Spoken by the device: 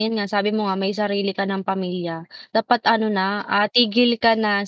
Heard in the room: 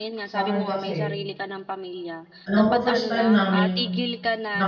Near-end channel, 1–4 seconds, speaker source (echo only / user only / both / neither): both